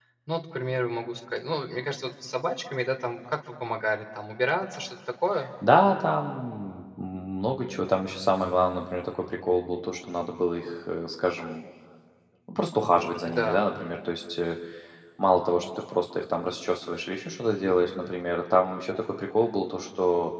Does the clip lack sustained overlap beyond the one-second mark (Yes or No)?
Yes